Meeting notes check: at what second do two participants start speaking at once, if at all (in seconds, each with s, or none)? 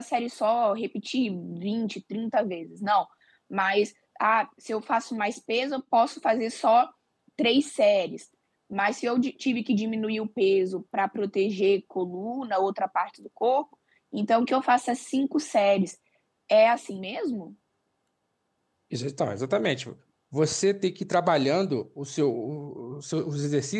none